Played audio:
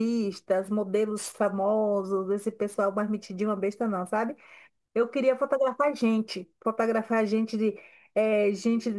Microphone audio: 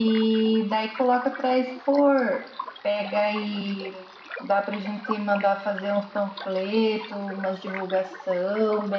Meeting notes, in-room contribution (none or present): present